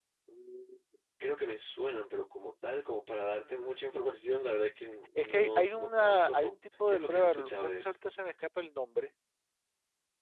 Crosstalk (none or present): present